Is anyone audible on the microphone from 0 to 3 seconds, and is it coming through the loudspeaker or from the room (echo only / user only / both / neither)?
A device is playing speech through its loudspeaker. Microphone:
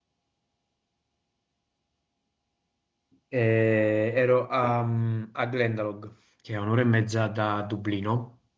neither